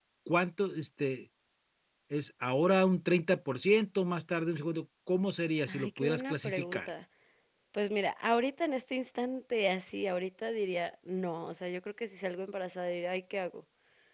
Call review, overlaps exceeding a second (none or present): present